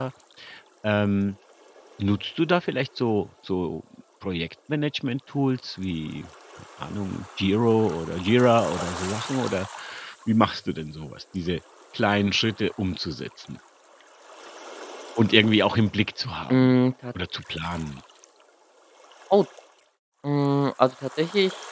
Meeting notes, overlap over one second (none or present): none